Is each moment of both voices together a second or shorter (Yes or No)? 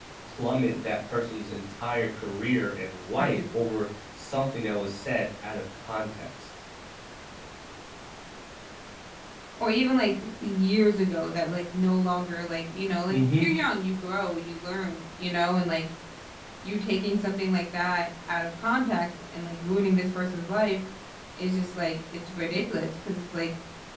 Yes